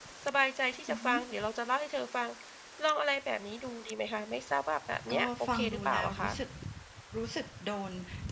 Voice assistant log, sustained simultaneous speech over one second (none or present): present